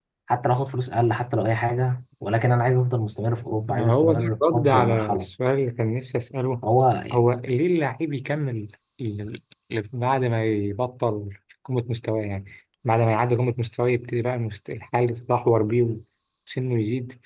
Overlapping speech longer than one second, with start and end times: 3.7-5.3

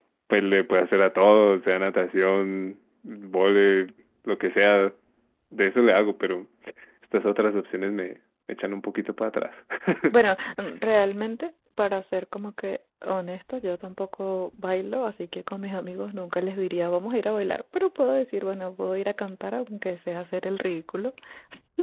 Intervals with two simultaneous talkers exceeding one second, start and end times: none

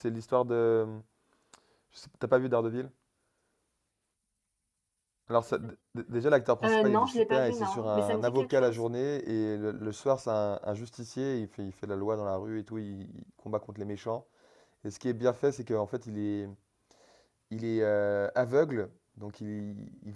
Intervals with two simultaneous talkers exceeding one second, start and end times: 6.6-8.8

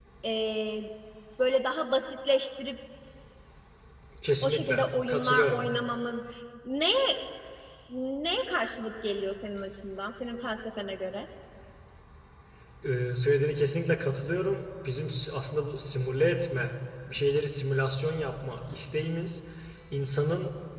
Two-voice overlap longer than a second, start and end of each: 4.4-5.6

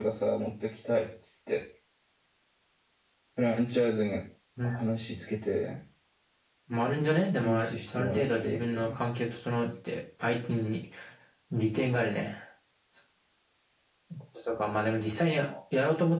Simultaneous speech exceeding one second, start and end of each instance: 7.4-9.0

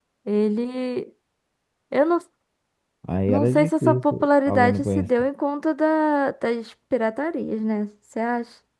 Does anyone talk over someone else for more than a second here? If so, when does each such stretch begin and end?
3.3-5.1

